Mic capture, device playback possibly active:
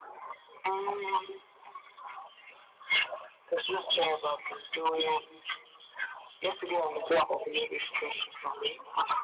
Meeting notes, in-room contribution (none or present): none